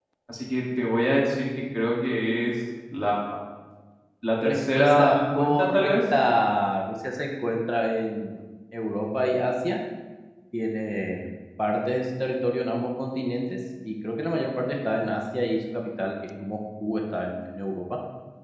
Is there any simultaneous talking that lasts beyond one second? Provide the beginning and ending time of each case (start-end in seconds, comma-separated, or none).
4.4-5.9